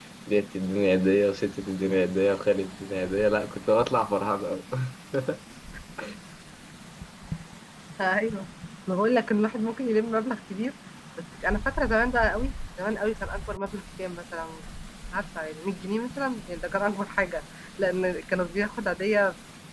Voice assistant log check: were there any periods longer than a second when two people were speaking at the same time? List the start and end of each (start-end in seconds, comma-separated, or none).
none